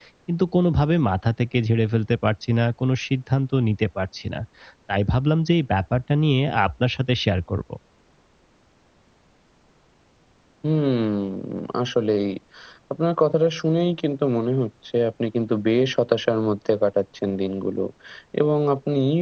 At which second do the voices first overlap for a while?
none

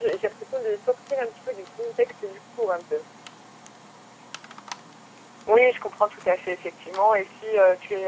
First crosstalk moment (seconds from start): none

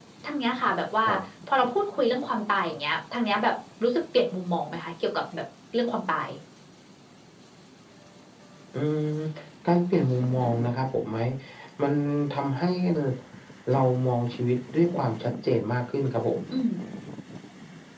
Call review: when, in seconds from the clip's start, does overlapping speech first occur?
none

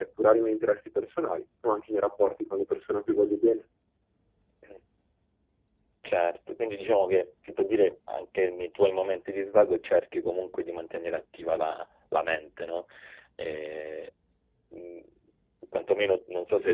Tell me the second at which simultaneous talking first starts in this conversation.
none

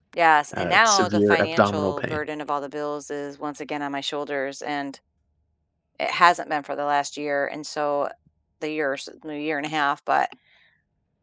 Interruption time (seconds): 1 s

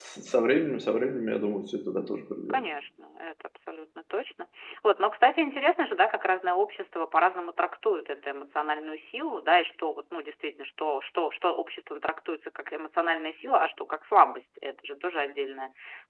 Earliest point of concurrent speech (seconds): none

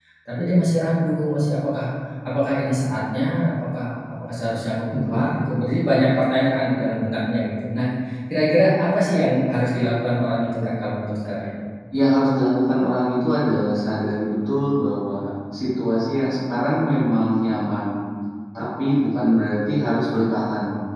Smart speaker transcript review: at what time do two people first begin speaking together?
none

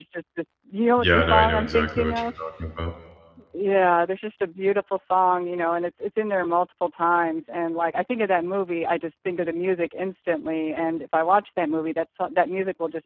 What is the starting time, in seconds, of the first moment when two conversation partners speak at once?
1 s

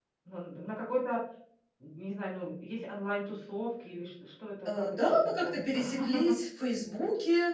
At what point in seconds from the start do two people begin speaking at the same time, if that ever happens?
5 s

